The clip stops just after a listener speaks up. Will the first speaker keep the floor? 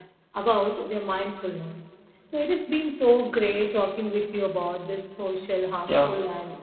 Yes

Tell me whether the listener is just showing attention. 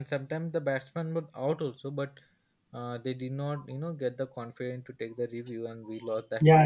No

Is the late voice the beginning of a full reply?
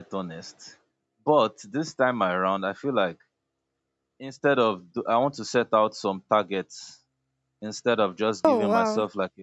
No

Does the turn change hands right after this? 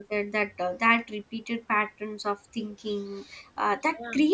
No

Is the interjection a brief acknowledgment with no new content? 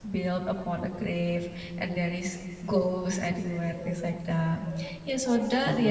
Yes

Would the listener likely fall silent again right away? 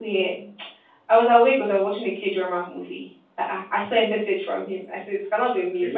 Yes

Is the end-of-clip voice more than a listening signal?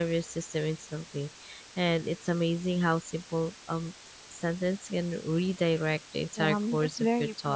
Yes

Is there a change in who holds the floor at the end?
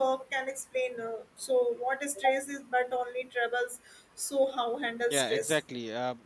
Yes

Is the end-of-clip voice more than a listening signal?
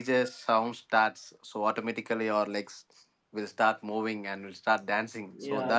Yes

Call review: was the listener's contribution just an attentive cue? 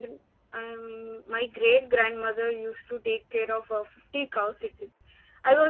Yes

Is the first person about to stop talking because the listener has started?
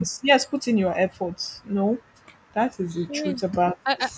Yes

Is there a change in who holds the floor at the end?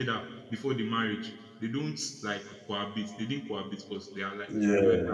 No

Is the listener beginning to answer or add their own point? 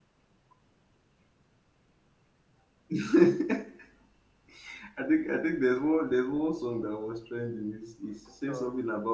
No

